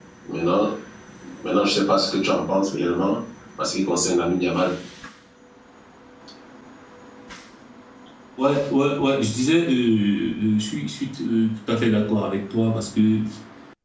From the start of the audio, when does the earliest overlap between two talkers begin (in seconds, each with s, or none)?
none